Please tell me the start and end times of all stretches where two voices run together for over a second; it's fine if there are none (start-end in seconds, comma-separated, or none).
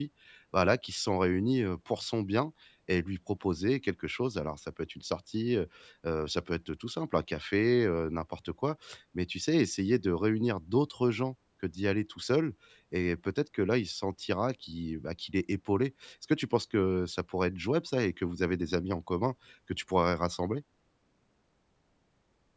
none